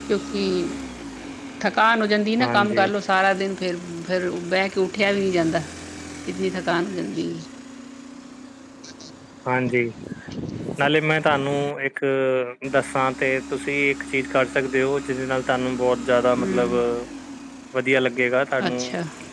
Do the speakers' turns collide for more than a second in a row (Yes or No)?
No